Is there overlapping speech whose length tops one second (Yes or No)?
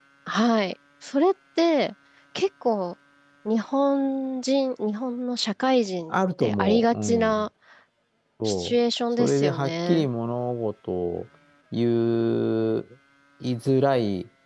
Yes